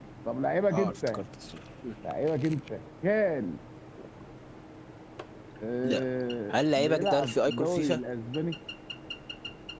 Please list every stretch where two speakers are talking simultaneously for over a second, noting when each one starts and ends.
6.5-8.0

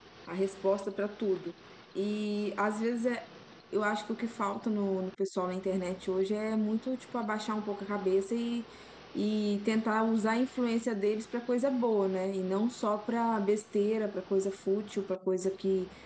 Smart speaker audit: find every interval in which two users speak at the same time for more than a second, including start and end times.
none

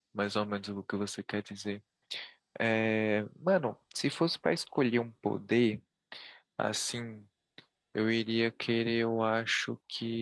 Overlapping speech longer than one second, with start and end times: none

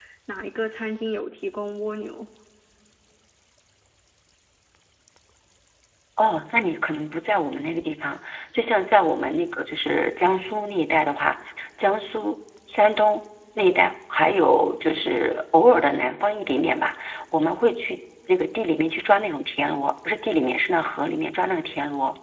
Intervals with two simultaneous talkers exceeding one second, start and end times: none

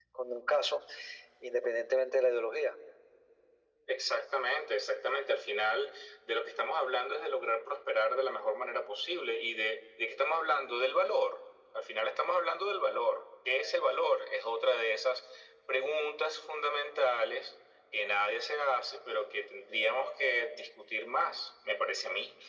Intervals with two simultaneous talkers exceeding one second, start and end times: none

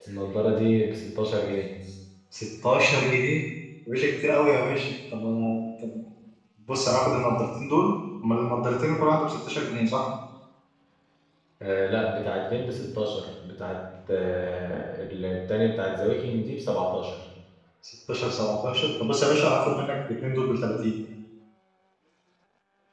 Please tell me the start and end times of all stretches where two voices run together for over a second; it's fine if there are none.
none

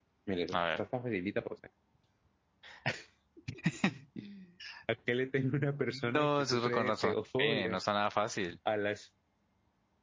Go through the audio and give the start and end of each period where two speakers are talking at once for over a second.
6.1-7.8

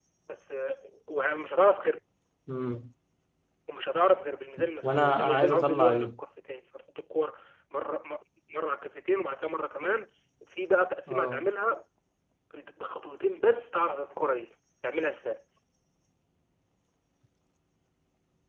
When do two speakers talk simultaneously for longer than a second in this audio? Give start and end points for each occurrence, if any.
4.8-6.2

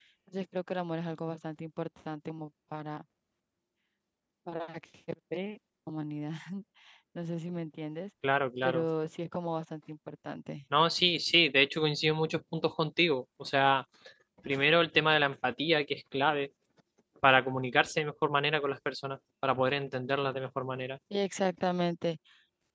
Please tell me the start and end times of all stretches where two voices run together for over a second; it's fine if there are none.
none

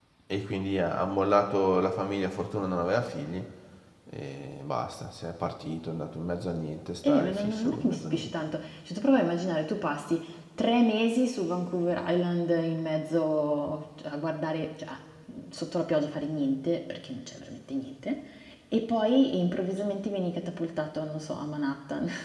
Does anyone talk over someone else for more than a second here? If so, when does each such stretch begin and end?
7.0-8.3

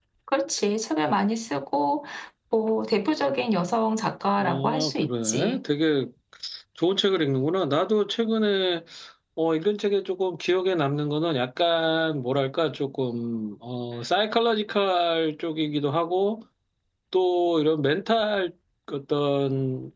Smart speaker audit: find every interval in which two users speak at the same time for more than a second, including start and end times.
4.4-5.6

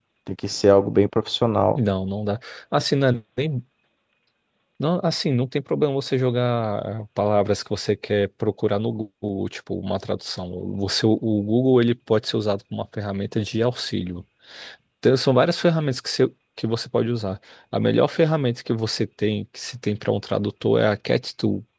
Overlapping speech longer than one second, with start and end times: none

